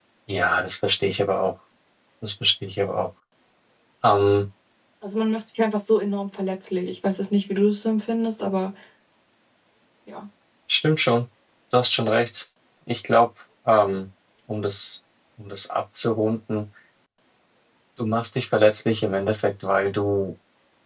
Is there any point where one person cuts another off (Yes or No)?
No